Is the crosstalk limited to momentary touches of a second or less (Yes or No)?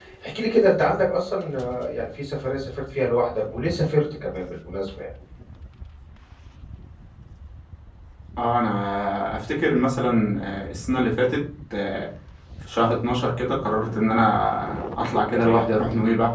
Yes